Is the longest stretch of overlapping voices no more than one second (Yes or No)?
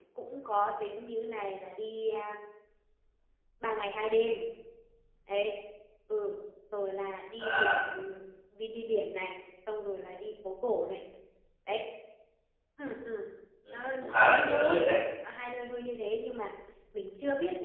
No